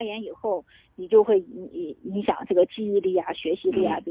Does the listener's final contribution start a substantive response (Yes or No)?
Yes